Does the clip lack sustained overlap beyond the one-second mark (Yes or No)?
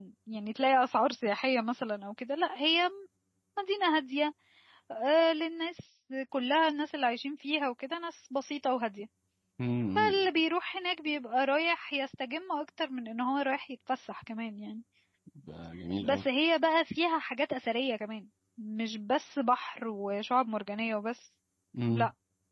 Yes